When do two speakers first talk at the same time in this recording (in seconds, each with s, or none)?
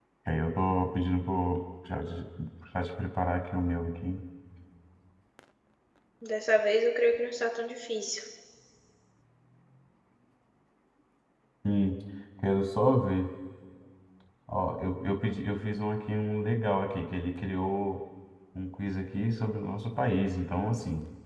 none